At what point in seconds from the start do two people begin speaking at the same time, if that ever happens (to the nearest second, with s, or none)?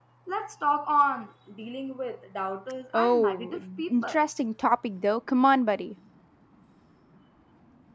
3 s